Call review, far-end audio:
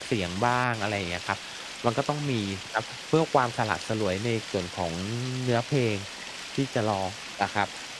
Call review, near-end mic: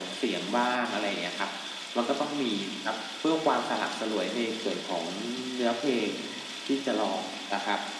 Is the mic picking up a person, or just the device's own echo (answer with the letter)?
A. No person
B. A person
A